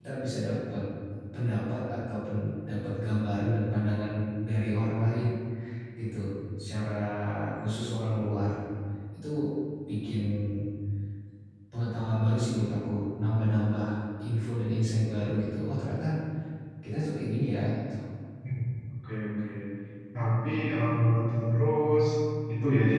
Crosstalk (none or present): none